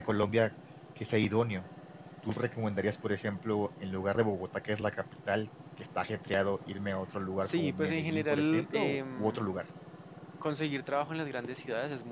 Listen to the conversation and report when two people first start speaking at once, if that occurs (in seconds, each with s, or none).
7.4 s